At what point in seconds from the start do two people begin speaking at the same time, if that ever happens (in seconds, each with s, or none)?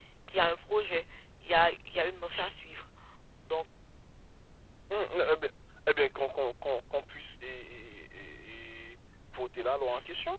none